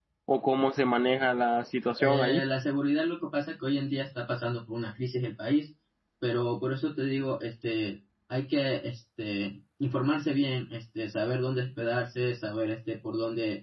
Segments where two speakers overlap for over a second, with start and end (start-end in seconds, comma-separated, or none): none